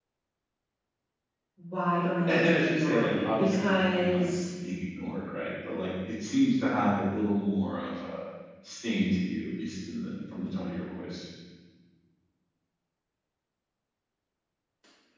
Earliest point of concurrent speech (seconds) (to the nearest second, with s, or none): 2 s